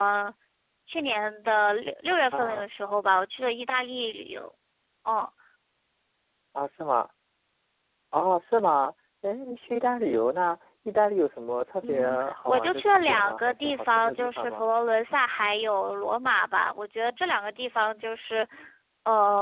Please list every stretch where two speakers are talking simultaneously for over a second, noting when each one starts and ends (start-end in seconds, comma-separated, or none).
11.9-14.7